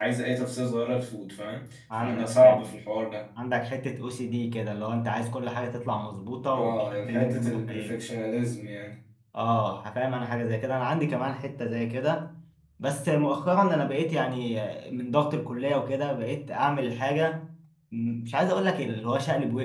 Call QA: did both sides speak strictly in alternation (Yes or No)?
No